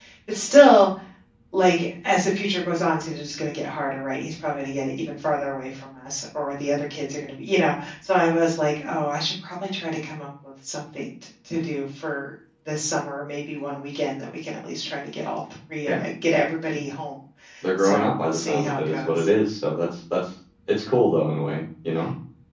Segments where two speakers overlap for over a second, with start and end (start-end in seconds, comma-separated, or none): 17.8-19.3